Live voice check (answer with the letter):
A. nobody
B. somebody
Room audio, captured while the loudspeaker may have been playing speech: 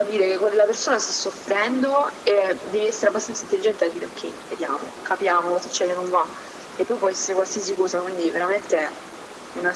A